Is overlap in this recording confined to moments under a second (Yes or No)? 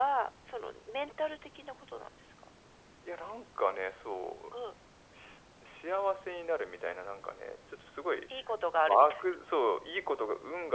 Yes